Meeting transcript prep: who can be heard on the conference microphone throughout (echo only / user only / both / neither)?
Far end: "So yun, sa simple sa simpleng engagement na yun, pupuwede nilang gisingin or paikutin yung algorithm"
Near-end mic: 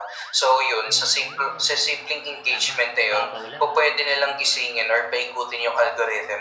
both